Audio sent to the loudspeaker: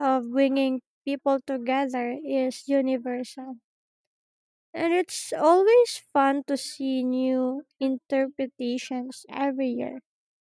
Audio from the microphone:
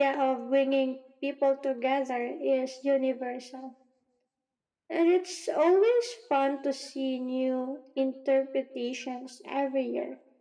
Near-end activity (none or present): none